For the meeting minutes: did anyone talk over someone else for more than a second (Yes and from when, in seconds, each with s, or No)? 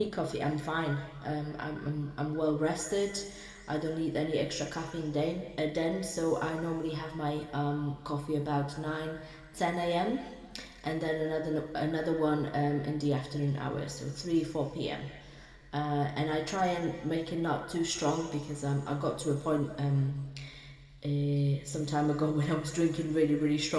No